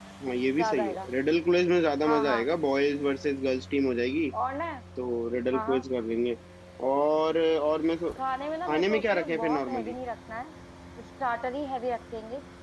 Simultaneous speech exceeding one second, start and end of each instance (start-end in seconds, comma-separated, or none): 8.7-9.9